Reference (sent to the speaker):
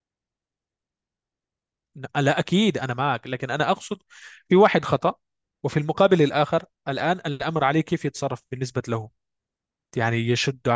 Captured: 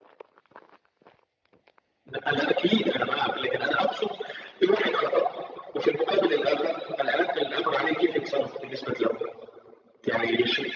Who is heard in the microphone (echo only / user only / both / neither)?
echo only